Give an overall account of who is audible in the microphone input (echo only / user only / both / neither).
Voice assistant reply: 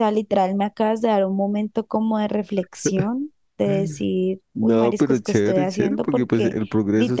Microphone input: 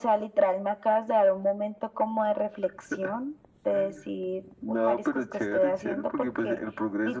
echo only